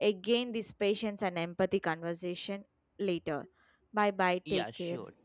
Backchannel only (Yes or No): No